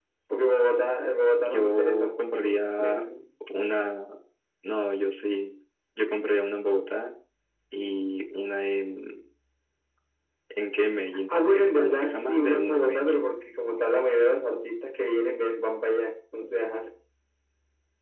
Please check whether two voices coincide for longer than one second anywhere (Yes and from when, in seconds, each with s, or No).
Yes, from 1.5 s